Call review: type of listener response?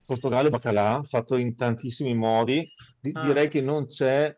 listening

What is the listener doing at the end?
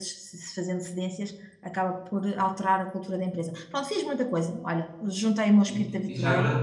taking over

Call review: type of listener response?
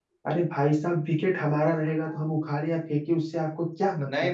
taking over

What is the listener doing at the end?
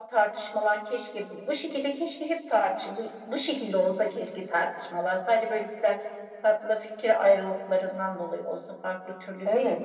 taking over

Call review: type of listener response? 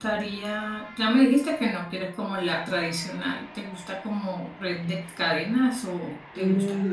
taking over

